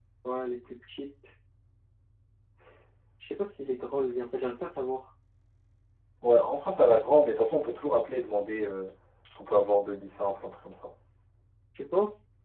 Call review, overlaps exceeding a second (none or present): none